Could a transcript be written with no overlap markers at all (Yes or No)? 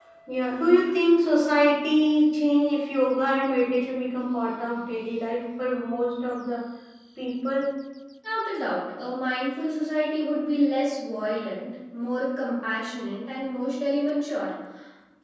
Yes